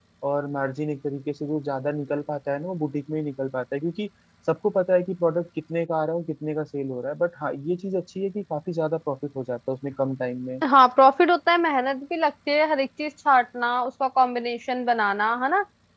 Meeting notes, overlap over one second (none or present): none